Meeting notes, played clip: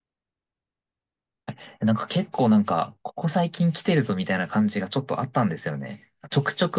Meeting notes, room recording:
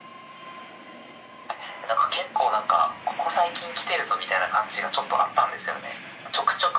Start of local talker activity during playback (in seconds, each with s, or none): none